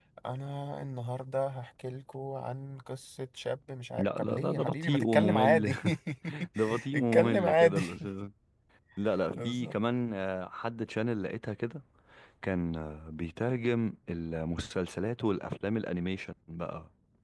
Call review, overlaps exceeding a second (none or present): present